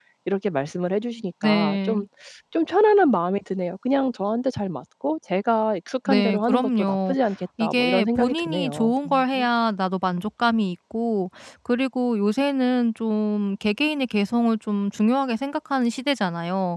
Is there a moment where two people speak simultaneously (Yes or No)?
Yes